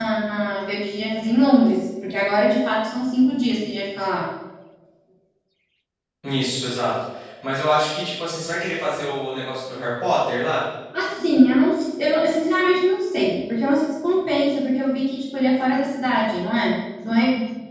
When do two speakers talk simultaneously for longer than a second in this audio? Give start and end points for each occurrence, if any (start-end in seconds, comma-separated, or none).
none